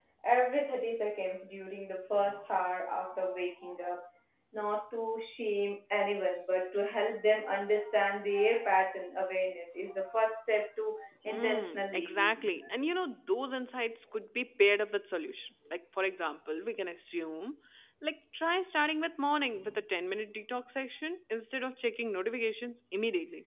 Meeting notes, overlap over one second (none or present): present